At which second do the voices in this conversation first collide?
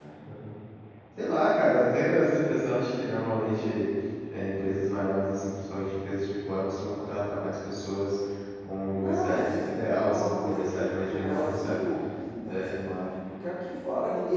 9.0 s

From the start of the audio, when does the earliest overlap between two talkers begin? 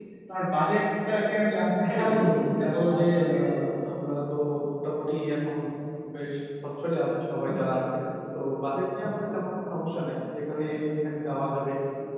1.8 s

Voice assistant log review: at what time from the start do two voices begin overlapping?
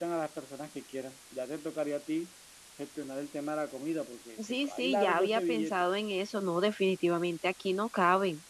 4.7 s

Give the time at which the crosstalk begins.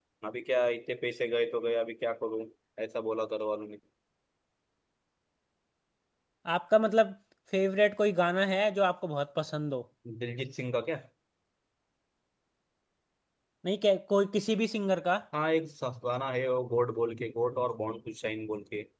none

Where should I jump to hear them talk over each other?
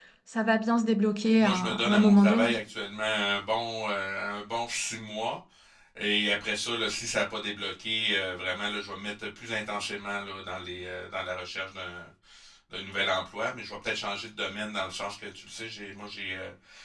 1.4 s

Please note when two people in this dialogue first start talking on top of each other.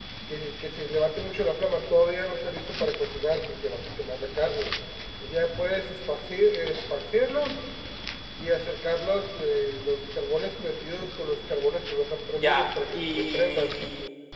12.4 s

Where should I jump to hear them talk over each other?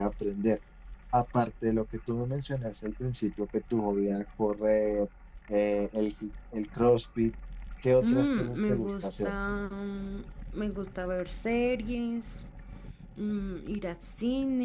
8.0 s

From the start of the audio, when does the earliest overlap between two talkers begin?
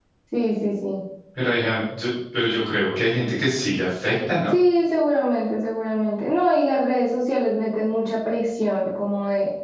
none

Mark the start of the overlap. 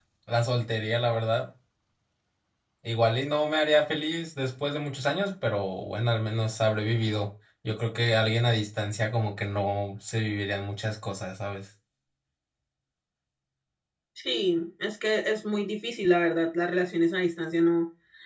none

